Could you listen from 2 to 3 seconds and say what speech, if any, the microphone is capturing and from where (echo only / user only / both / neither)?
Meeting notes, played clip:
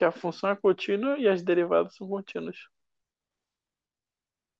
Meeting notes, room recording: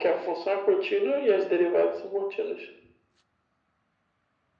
echo only